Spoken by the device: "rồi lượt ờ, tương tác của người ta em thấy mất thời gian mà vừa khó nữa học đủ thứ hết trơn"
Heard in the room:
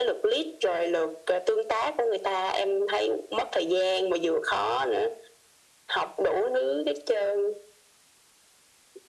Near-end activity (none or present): none